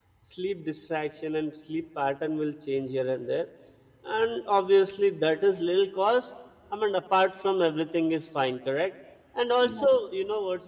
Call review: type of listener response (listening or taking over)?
listening